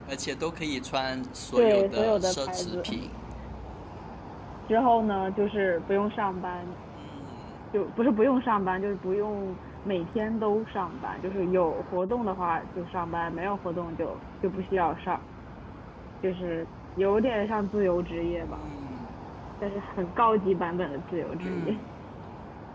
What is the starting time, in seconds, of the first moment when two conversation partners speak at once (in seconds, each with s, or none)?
1.6 s